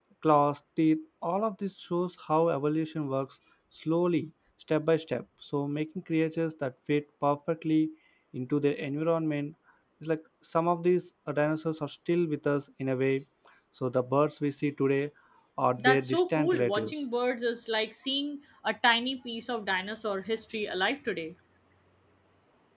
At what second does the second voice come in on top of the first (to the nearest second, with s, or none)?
16 s